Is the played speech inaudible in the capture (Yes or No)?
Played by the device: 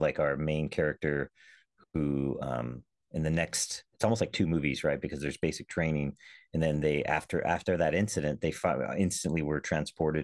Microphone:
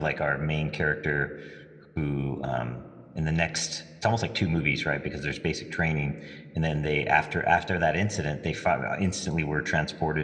No